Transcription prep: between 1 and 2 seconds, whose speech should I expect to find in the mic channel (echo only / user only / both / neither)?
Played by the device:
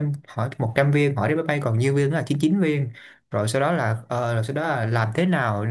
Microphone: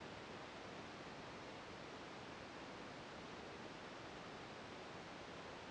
neither